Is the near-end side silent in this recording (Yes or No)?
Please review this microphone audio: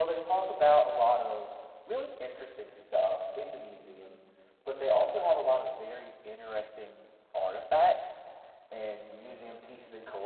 Yes